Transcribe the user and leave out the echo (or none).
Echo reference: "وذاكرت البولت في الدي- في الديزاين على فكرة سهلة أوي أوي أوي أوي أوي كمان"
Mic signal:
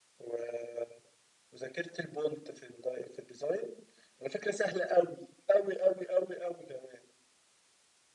none